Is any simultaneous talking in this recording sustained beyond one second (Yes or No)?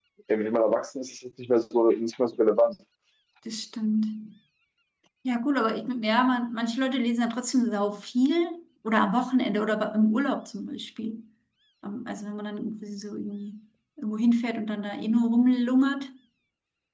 No